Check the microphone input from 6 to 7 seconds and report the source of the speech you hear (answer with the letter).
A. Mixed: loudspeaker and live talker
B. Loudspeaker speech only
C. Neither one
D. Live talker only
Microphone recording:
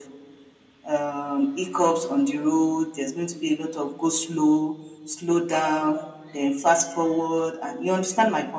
B